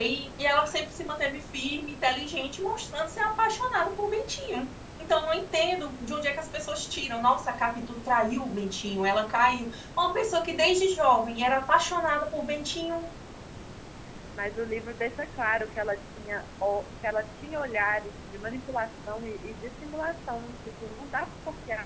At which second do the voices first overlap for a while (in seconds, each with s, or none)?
none